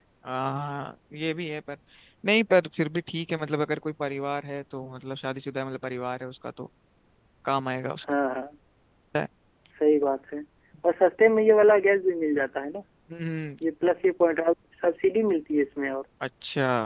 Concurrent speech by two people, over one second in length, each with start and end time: none

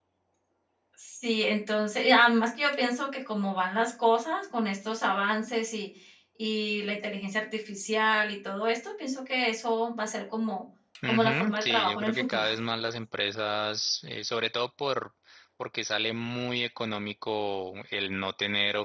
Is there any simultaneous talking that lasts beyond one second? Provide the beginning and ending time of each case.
11.1-12.4

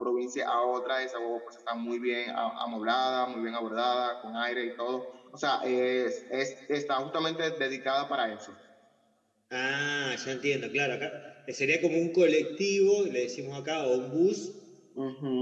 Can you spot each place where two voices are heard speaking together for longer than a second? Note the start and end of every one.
none

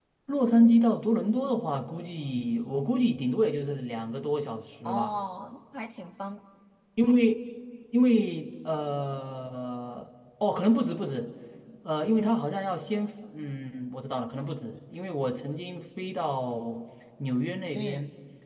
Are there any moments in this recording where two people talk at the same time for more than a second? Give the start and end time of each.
none

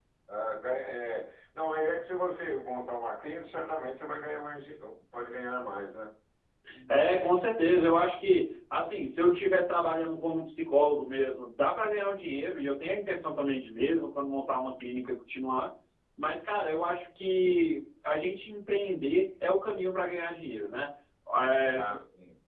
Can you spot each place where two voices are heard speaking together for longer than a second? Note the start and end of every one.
none

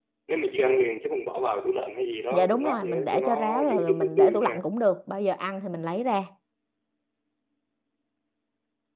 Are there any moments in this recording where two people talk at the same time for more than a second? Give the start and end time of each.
2.3-4.6

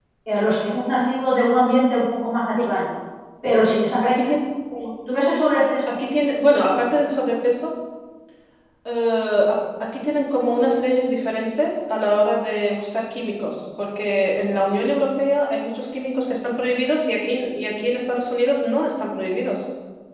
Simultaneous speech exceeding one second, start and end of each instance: none

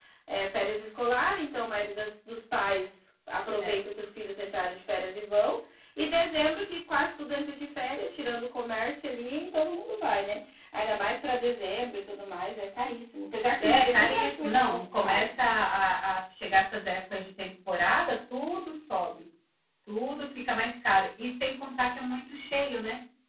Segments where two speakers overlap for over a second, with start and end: 13.6-15.3

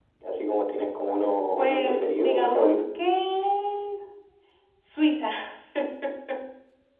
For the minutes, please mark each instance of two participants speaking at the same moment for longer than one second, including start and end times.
1.6-2.8

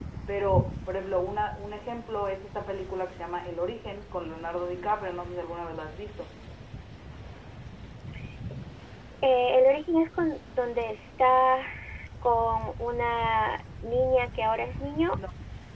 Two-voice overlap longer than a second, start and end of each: none

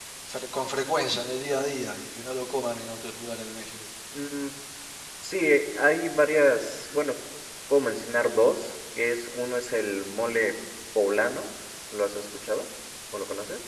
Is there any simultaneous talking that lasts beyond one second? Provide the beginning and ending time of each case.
none

